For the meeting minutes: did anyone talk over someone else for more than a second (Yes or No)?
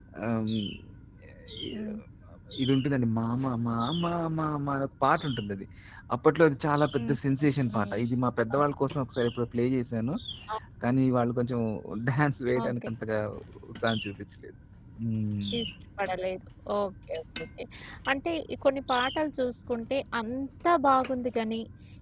No